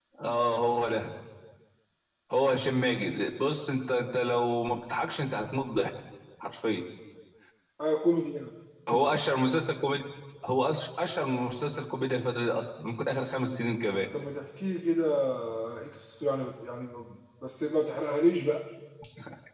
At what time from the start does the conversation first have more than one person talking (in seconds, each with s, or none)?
none